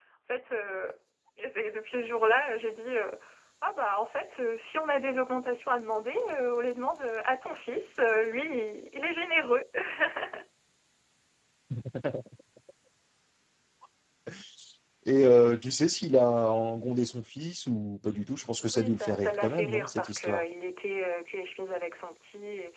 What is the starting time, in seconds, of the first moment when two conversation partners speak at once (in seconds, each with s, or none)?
18.7 s